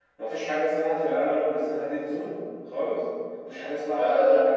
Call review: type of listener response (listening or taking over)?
taking over